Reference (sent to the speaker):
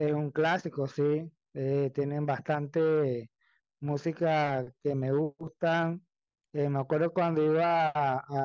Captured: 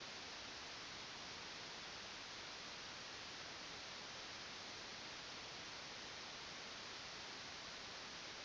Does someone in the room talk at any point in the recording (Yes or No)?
No